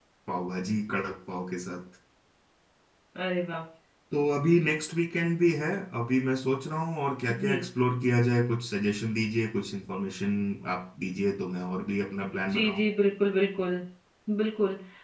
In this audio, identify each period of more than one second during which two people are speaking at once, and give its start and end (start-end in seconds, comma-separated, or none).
none